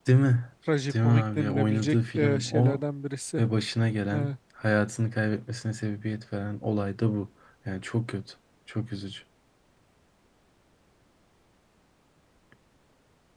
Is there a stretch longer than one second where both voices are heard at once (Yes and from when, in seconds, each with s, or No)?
Yes, from 0.9 s